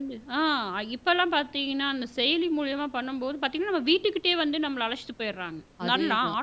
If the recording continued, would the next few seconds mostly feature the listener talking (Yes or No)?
No